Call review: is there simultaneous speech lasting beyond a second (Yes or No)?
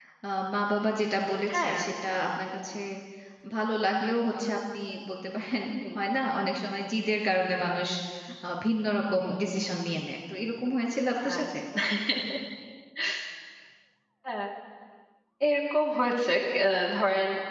No